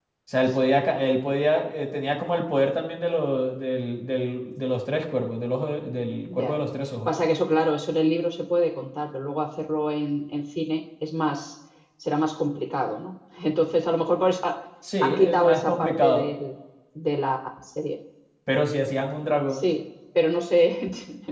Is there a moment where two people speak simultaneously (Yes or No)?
Yes